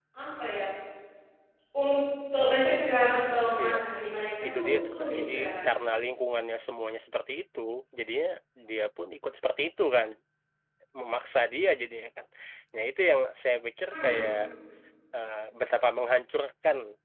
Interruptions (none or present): present